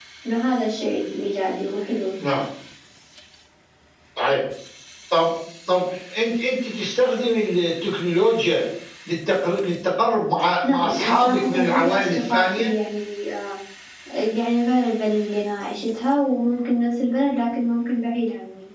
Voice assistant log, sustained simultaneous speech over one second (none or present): present